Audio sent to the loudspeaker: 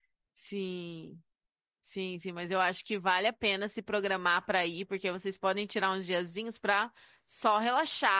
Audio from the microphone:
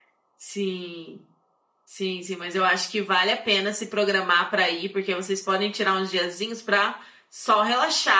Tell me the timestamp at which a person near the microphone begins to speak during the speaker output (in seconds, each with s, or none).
none